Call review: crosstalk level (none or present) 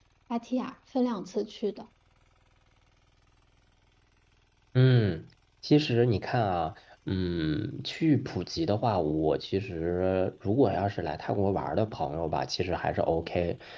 none